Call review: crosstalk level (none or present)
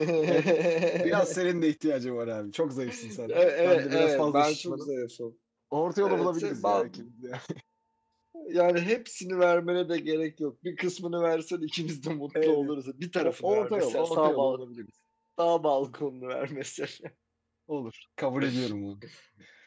present